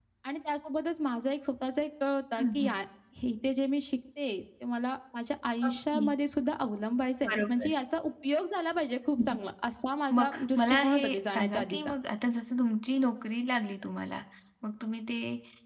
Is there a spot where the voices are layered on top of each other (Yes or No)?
Yes